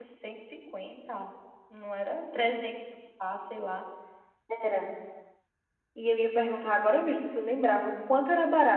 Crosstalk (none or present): none